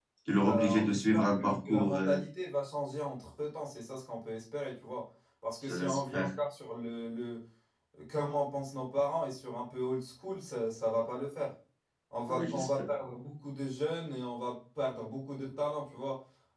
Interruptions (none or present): present